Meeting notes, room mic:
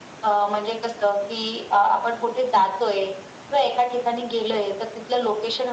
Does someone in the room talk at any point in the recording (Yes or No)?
No